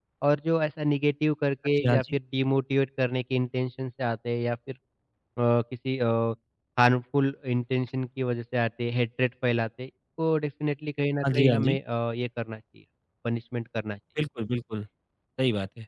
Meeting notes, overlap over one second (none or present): none